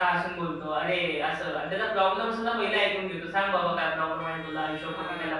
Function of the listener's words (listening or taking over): listening